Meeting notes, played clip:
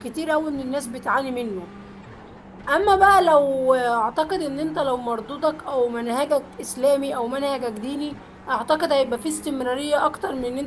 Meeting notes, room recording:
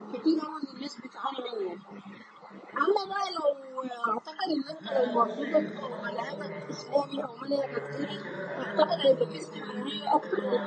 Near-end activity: present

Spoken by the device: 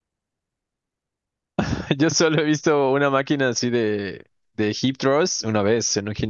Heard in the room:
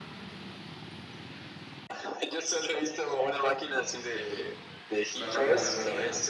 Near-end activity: present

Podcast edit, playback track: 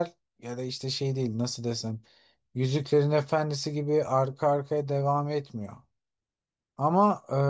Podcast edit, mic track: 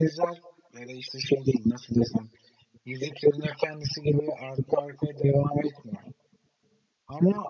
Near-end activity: none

